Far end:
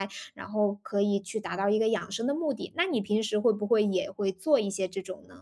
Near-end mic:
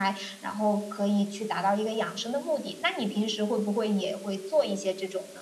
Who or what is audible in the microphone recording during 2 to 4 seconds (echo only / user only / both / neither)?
echo only